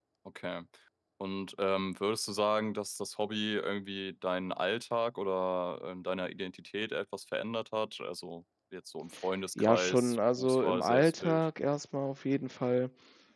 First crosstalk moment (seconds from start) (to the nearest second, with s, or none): 10 s